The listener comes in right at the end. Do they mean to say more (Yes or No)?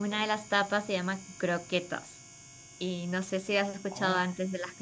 Yes